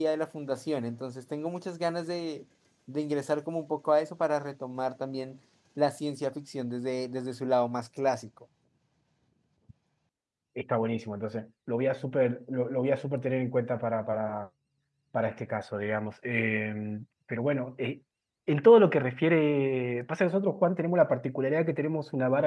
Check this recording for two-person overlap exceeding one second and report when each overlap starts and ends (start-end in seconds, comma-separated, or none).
none